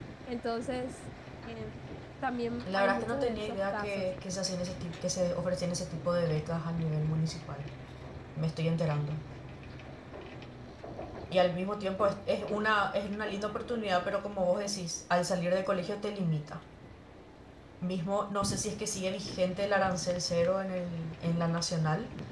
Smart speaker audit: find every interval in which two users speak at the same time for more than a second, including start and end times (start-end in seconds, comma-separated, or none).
2.8-4.1